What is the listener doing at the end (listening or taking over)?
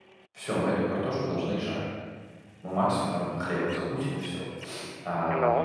listening